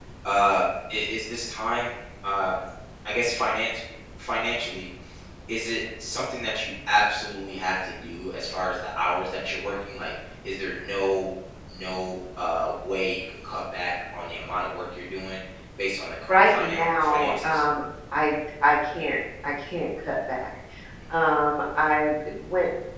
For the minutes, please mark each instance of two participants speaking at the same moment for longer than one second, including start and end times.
16.3-17.6

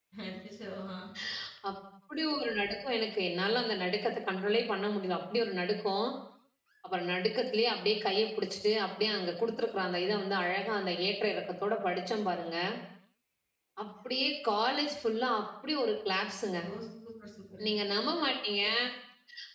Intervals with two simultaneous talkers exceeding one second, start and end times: none

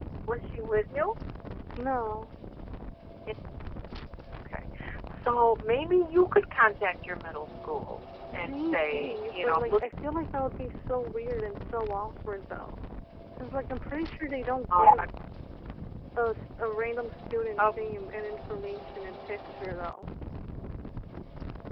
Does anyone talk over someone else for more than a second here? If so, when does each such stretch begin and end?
8.3-9.9

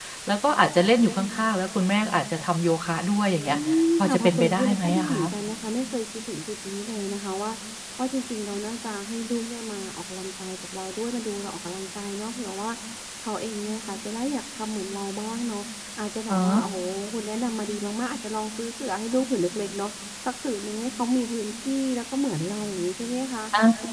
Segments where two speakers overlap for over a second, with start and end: 4.0-5.2

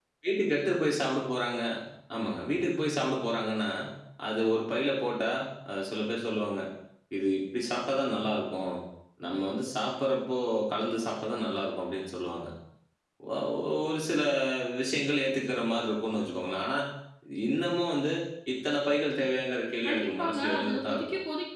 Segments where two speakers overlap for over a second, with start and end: 19.9-21.1

